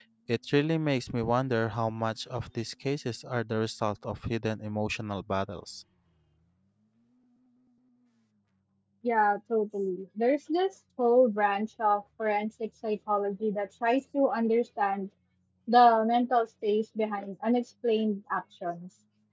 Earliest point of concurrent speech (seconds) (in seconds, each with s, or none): none